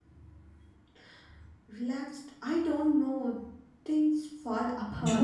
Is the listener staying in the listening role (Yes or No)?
No